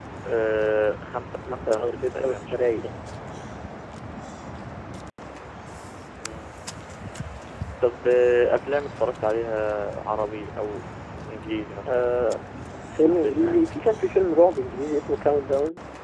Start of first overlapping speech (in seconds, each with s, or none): 1.5 s